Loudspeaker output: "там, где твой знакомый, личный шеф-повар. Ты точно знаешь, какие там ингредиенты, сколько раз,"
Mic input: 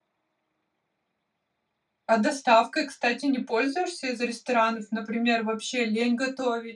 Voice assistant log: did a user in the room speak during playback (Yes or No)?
Yes